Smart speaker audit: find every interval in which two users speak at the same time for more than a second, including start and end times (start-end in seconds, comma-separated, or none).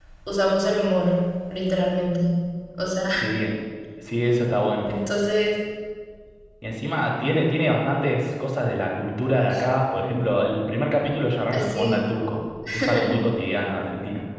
none